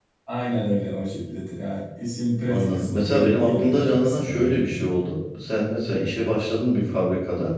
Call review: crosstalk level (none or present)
present